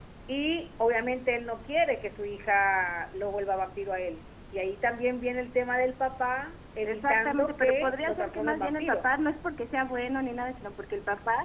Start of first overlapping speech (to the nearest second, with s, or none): 7 s